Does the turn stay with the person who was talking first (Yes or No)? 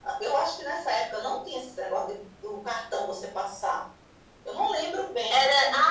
No